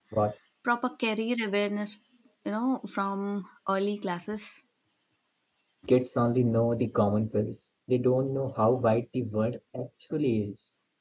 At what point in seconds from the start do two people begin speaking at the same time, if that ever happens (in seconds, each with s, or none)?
none